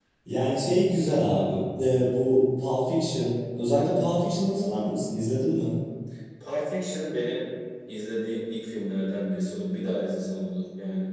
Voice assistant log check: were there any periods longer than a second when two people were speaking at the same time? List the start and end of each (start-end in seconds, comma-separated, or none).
none